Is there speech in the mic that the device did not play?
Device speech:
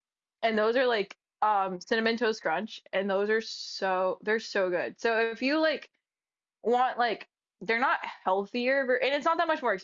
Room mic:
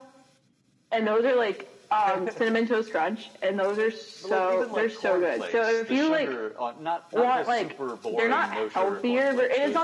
Yes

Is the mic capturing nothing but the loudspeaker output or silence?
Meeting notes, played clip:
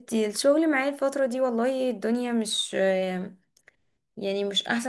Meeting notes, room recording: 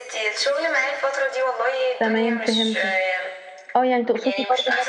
No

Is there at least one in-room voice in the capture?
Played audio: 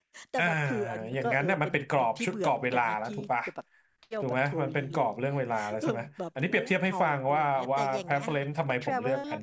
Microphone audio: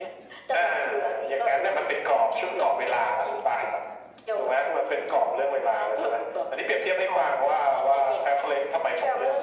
No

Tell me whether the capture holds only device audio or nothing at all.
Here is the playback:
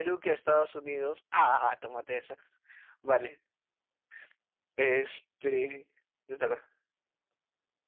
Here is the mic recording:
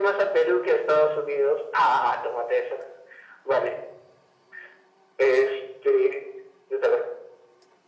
Yes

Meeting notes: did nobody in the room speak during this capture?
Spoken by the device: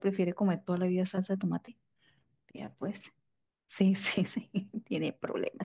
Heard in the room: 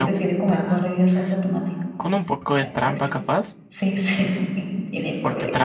No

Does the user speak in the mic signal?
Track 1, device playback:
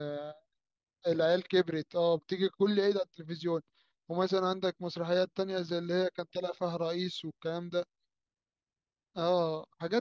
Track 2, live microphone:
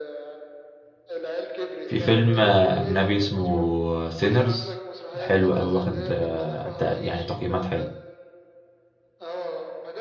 Yes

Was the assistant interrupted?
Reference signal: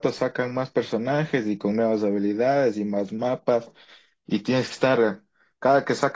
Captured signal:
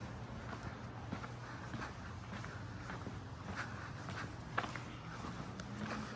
No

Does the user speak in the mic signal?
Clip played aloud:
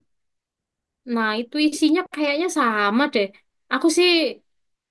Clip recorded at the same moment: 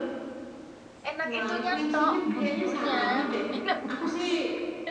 Yes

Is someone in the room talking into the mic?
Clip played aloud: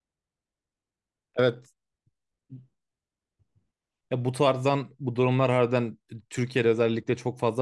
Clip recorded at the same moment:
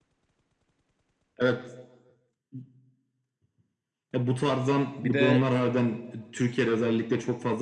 Yes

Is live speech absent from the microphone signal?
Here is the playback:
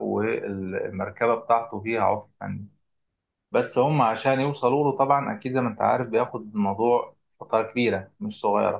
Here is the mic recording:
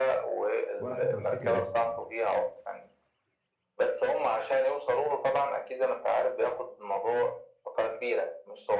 No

